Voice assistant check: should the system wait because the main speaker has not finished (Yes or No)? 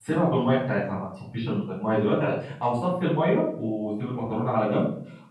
Yes